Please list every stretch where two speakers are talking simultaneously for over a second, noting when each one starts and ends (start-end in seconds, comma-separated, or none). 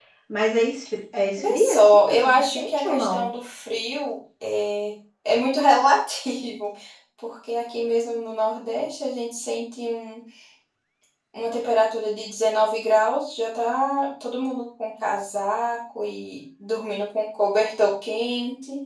1.4-3.2